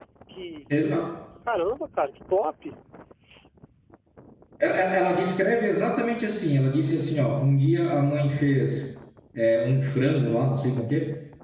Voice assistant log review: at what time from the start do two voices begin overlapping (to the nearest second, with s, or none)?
none